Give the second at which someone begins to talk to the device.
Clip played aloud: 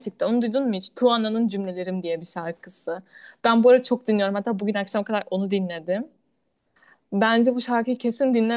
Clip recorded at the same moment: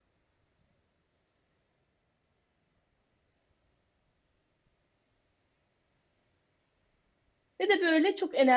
7.6 s

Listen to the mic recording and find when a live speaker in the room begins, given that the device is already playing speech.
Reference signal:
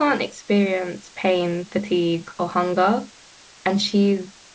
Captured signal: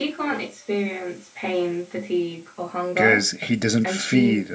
2.9 s

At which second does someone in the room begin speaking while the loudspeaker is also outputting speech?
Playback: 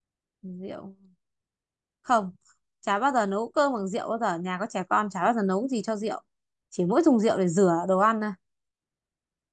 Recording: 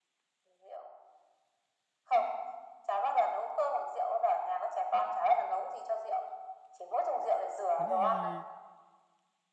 7.8 s

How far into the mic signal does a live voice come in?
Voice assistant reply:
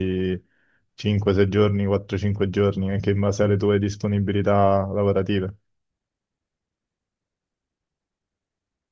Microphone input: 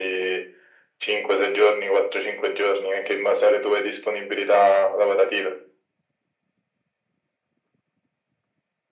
none

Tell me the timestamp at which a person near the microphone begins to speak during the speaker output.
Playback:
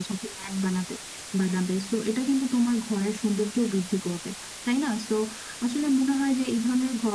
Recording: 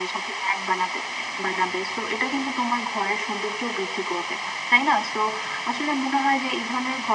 none

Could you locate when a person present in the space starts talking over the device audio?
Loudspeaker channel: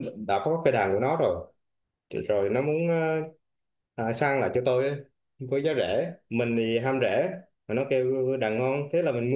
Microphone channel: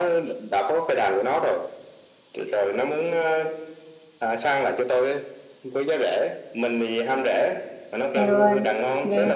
8.1 s

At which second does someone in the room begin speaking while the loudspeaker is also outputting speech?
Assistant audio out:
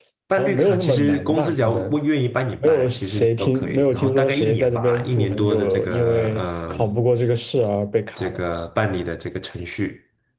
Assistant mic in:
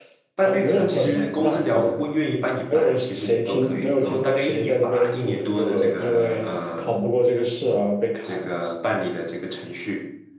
none

